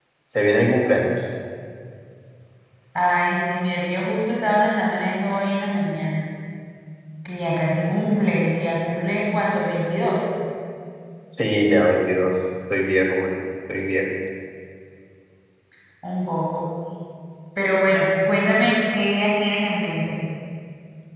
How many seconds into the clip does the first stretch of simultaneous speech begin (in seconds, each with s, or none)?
none